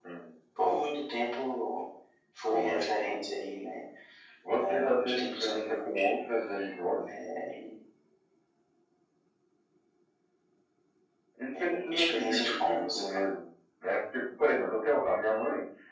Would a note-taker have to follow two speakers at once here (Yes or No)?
Yes